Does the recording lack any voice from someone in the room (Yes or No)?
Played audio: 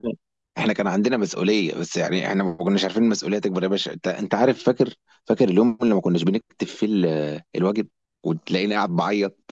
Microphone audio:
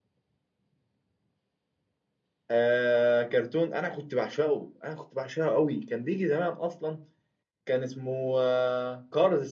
No